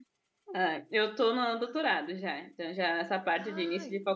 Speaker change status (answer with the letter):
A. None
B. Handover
A